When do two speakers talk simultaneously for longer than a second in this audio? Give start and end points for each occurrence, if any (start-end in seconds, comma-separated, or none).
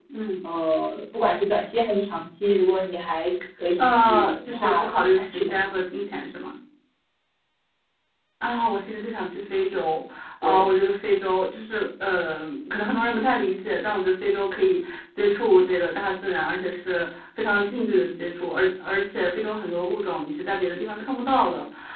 3.8-5.5